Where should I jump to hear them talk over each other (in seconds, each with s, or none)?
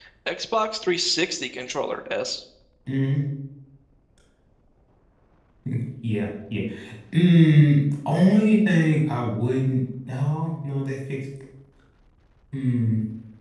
none